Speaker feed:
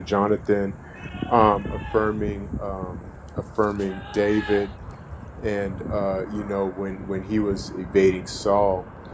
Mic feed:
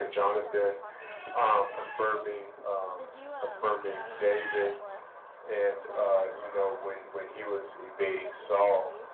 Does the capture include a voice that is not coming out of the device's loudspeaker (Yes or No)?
Yes